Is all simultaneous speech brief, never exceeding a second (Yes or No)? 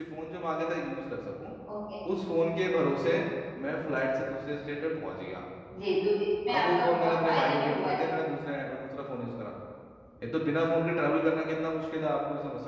No